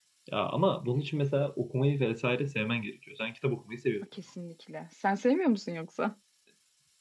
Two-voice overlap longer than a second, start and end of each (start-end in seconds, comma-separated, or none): none